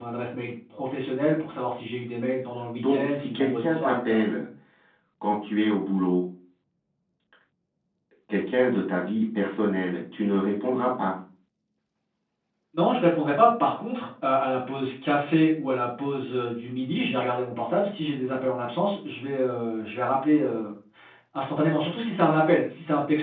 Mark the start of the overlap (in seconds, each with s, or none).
2.8 s